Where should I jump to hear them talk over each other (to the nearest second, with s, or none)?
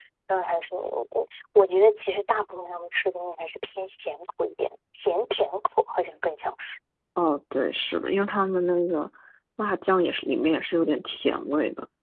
none